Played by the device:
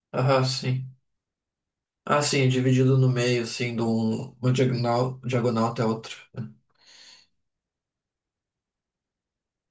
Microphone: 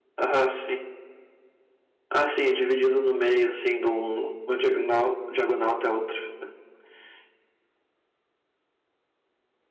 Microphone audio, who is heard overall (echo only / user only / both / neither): echo only